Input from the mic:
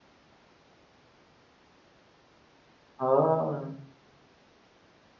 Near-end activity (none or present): present